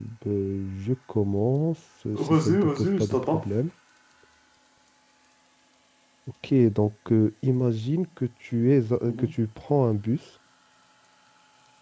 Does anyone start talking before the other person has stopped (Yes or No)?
Yes